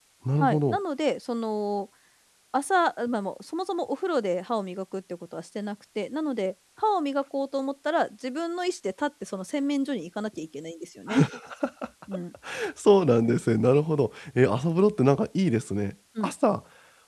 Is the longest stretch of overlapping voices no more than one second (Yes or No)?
Yes